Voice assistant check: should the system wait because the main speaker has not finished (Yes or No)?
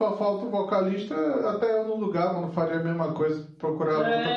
No